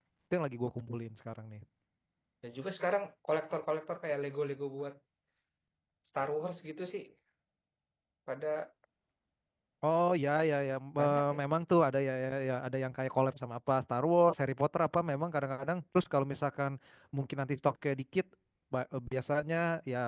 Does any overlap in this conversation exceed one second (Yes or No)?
No